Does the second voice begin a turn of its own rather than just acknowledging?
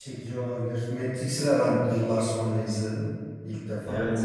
Yes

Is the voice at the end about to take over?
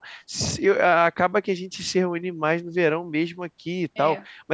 No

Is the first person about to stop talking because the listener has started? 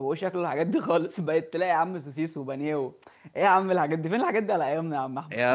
Yes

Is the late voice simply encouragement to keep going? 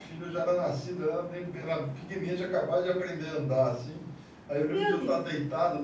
Yes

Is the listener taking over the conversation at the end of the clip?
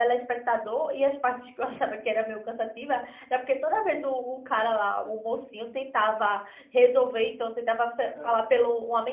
No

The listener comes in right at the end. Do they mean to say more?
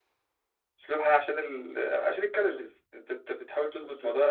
No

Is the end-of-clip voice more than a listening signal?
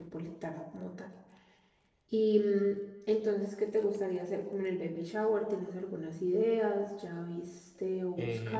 Yes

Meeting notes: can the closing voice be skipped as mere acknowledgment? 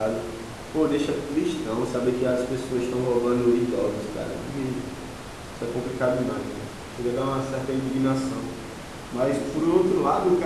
Yes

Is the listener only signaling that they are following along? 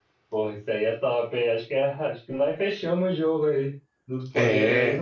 Yes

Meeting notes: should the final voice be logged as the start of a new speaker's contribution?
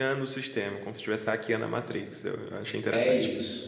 Yes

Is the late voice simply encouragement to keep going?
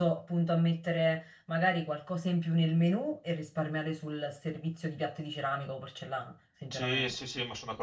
No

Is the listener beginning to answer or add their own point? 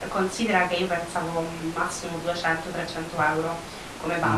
Yes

